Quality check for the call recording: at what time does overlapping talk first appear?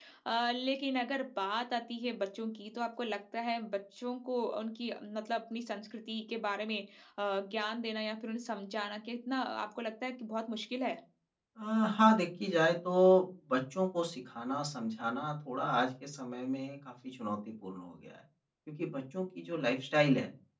none

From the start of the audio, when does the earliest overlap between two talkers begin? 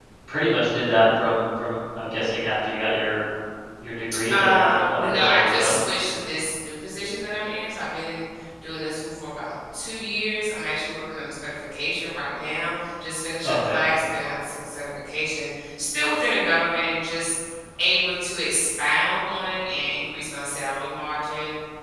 4.3 s

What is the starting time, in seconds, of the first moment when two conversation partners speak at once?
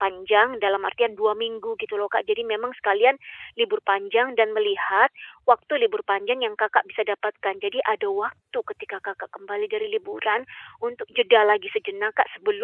none

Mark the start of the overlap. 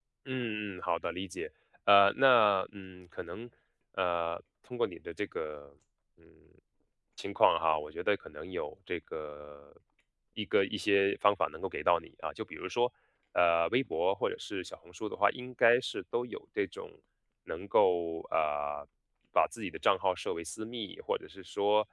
none

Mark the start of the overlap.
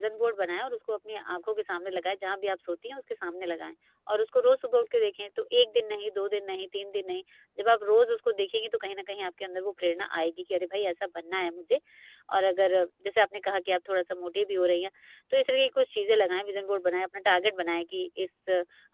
none

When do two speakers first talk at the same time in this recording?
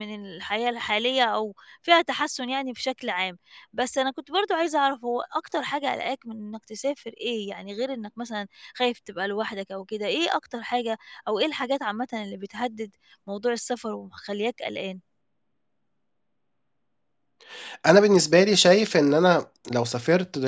none

